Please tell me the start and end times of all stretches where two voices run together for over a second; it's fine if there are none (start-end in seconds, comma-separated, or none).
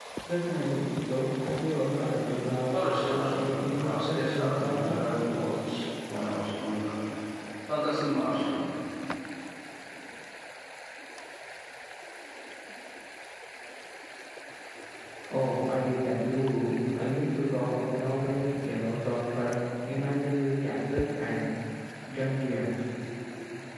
2.7-5.0